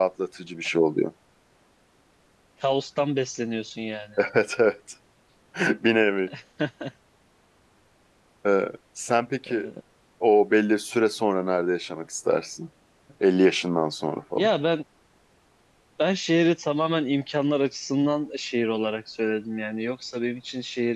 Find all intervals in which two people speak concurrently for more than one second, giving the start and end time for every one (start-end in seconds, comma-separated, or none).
none